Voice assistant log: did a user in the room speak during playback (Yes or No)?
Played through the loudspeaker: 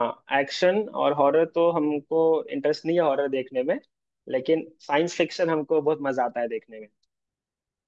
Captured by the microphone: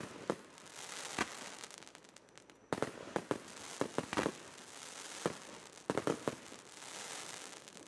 No